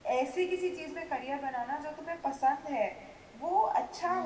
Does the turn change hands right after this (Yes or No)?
No